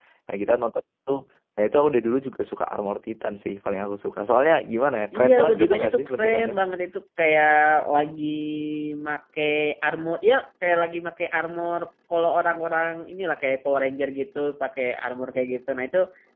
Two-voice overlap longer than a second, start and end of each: 5.2-6.5

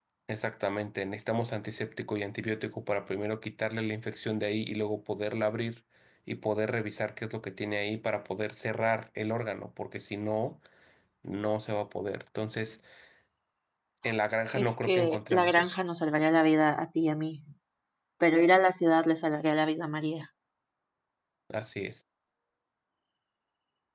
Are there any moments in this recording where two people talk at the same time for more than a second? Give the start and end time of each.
14.5-15.8

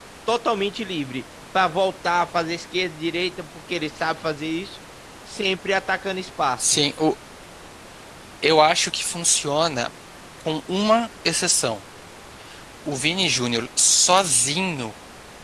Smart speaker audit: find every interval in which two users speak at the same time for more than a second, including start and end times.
none

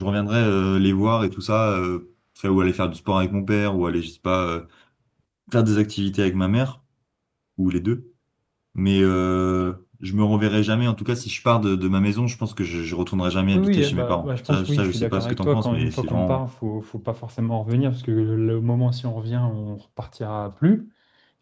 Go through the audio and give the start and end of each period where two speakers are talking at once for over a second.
13.5-16.4

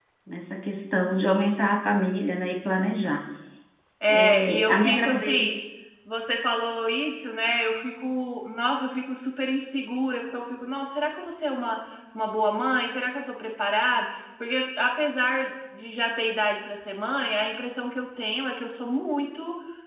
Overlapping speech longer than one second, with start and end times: 4.1-5.5

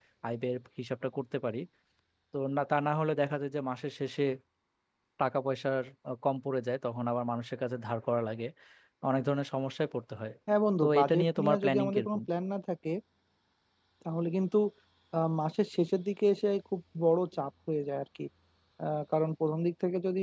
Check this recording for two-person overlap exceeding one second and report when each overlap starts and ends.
10.8-12.2

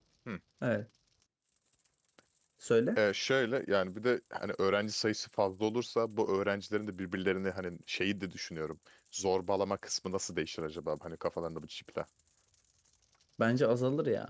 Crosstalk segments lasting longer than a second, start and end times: none

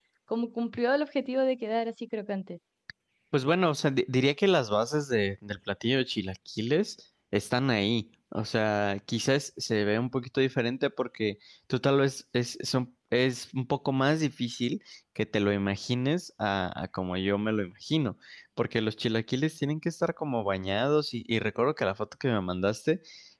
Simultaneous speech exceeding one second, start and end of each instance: none

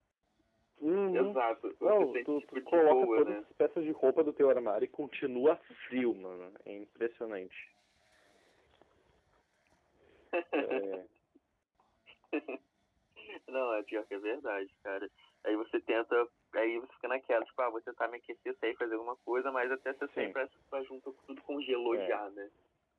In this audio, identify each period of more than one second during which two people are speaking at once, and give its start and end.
1.8-3.4

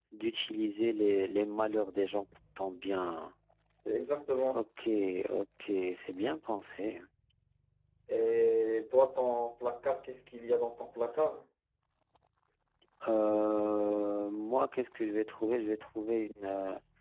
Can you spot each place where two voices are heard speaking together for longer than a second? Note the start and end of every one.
none

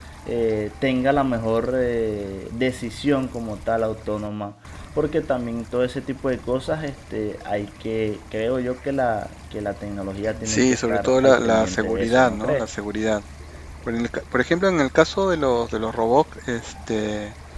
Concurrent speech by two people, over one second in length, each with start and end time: 10.4-12.6

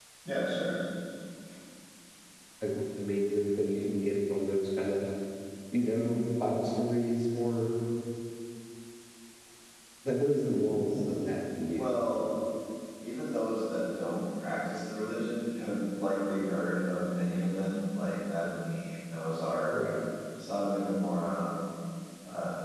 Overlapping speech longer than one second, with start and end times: none

